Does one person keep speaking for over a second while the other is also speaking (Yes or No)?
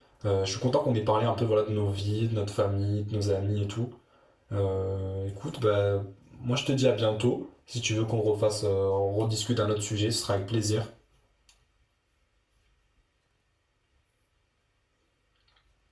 No